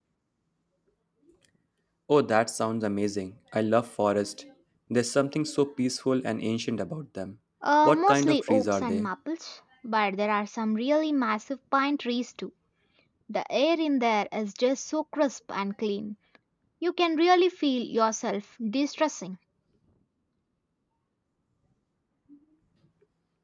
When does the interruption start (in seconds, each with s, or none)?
7.8 s